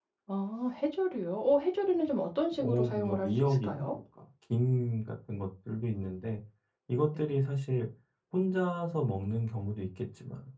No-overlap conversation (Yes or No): No